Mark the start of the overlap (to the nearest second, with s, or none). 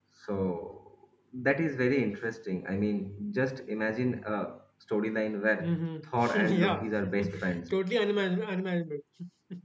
6 s